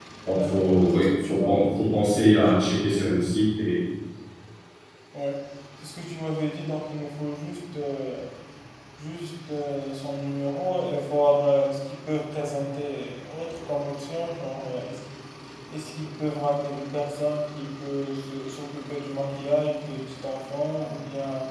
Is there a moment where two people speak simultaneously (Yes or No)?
Yes